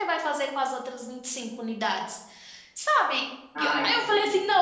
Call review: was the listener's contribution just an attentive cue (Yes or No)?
Yes